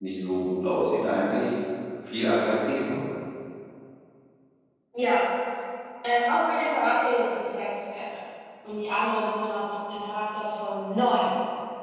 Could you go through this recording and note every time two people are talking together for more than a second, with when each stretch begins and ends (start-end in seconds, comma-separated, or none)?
none